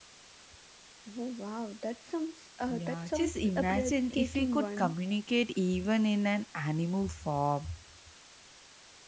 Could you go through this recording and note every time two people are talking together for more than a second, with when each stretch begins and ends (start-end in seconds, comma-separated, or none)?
2.7-4.9